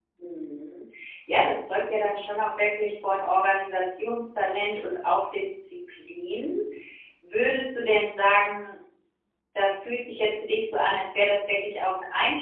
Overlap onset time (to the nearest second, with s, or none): none